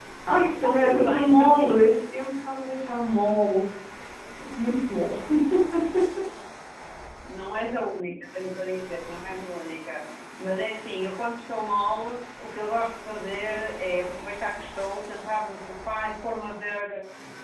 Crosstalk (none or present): present